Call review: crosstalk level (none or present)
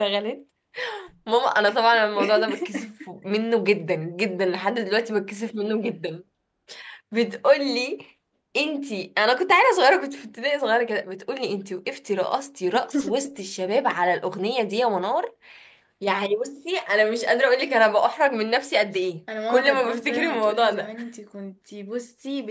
present